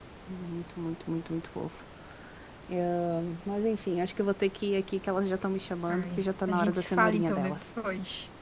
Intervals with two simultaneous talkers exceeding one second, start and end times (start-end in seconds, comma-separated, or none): 5.9-7.6